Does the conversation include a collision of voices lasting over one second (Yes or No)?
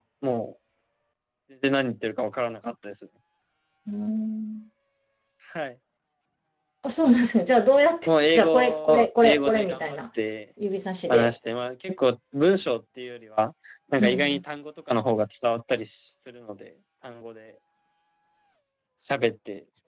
Yes